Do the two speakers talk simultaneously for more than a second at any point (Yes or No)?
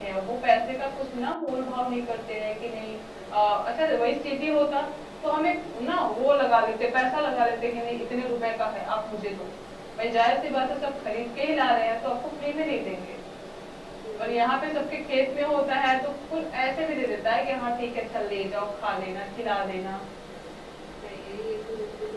No